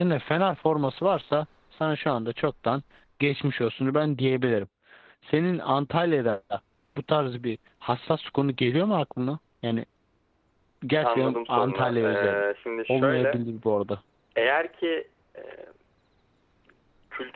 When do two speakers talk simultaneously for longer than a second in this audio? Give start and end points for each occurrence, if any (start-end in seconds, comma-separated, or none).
11.0-12.4